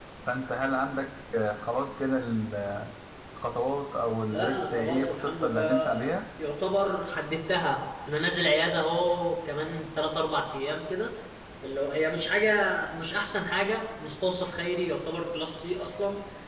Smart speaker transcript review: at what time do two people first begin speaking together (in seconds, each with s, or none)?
4.3 s